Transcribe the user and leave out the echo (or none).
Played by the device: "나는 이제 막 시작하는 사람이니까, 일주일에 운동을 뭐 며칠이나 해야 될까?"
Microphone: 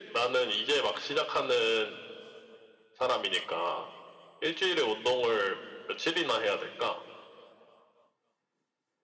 none